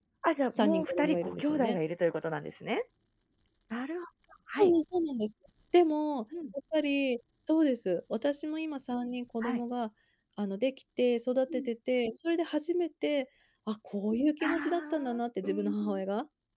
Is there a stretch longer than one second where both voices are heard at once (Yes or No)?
Yes